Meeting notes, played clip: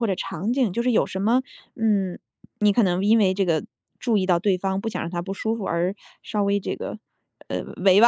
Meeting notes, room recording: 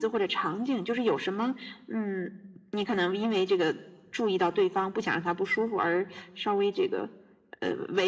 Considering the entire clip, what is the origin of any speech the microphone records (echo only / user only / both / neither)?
echo only